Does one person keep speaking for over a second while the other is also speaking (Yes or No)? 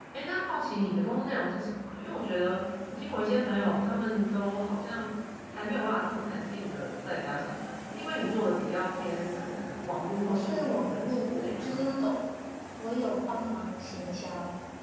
Yes